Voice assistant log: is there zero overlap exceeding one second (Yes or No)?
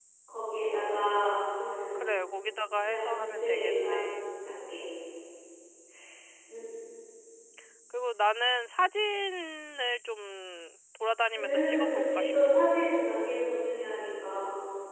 No